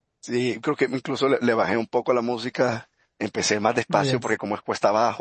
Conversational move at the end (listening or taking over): listening